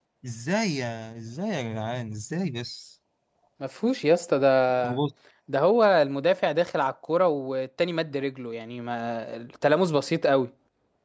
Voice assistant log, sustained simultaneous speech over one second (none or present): none